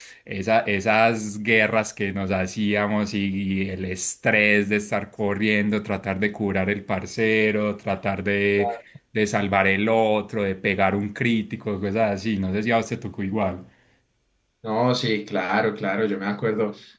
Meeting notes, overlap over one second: none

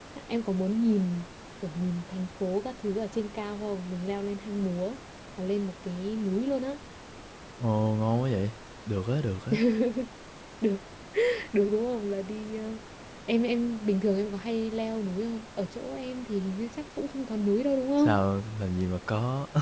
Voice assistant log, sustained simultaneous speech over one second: none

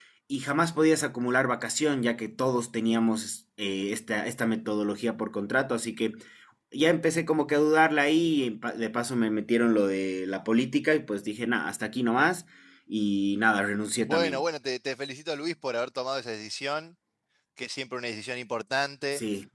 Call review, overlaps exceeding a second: none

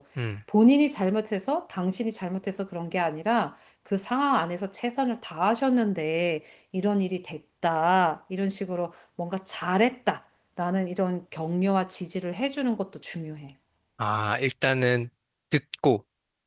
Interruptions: none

